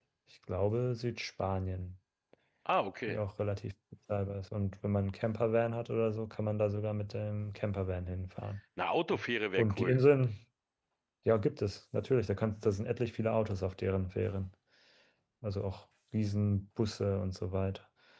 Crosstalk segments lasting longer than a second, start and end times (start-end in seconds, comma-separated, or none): none